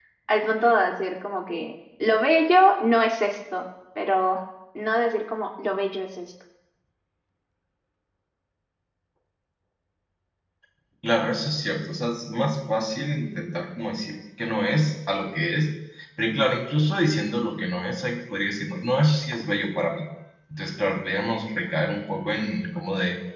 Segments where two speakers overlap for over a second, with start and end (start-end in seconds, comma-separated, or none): none